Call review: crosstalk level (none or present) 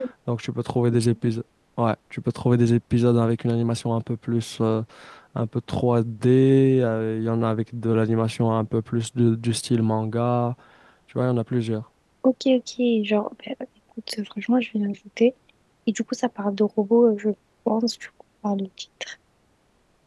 none